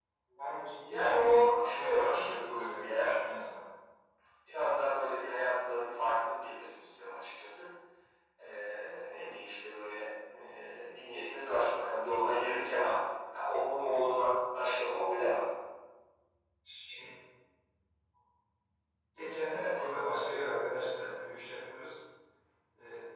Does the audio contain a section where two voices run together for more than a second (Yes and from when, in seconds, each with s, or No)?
Yes, from 0.8 s